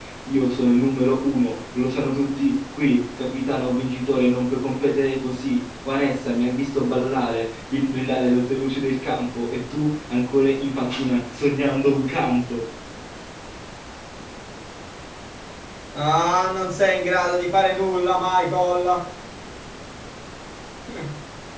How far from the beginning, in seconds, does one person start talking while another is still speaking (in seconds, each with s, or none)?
none